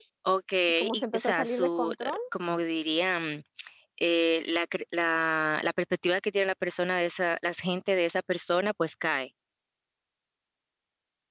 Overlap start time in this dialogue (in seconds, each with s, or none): 0.7 s